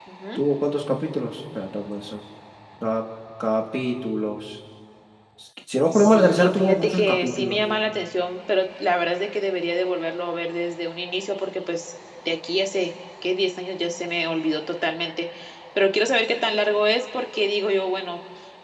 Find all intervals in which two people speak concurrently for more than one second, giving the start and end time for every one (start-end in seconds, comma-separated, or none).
5.9-7.6